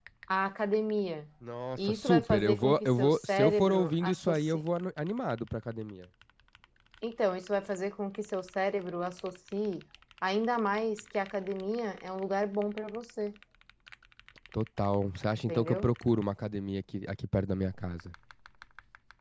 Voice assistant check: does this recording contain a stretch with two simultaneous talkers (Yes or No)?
Yes